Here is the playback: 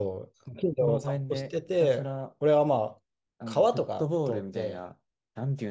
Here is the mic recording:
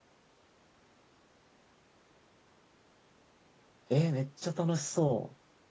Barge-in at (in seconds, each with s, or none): 3.9 s